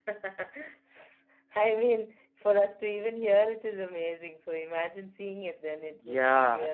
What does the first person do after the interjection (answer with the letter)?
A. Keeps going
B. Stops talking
B